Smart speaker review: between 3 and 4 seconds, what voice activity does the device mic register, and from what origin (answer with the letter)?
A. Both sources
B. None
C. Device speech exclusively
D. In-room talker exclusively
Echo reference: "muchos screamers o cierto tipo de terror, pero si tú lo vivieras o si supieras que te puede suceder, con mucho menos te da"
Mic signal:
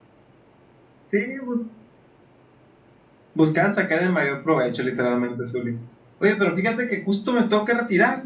D